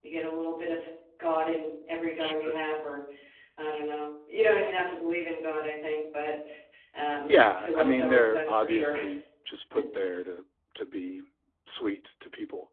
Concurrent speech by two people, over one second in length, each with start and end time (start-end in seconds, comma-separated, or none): 7.3-8.9